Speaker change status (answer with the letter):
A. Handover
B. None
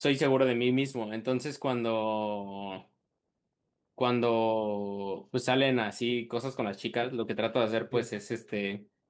B